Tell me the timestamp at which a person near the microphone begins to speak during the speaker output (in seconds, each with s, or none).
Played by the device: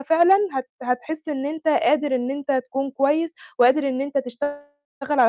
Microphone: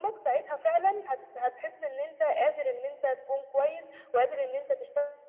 none